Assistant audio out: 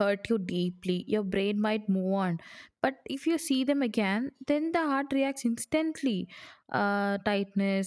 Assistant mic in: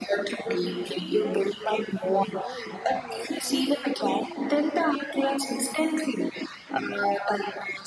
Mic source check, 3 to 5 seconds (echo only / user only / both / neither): both